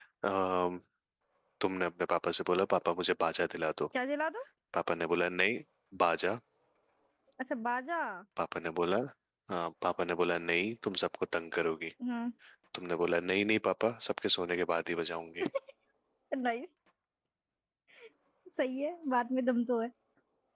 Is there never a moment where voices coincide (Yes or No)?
Yes